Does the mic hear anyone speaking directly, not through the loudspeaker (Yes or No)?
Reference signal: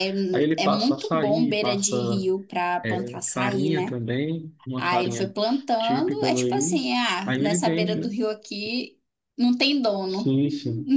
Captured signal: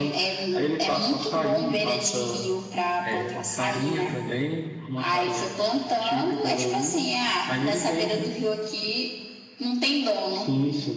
No